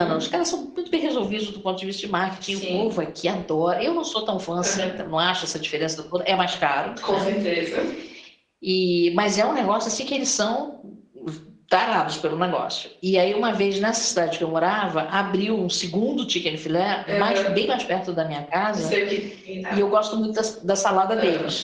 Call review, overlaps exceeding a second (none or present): none